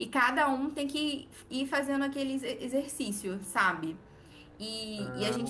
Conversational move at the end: taking over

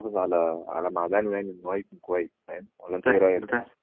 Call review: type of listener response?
taking over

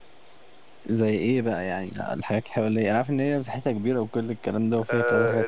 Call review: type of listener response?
taking over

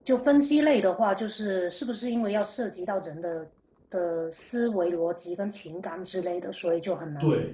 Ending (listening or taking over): taking over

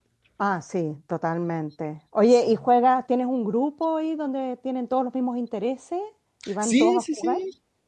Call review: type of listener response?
taking over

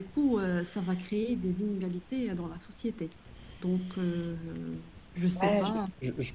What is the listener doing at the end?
taking over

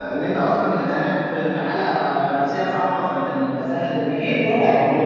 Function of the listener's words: taking over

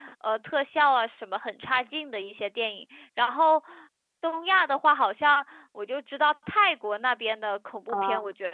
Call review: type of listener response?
listening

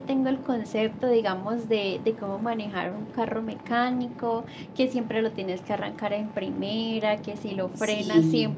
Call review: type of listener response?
listening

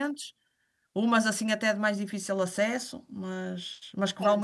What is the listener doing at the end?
taking over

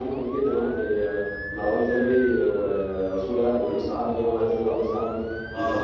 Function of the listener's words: taking over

